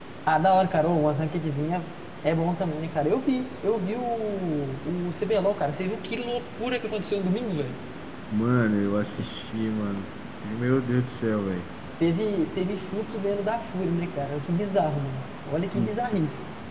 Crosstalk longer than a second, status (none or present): none